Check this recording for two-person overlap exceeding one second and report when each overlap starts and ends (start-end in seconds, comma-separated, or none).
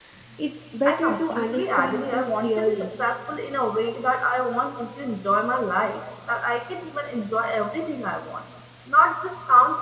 0.9-2.9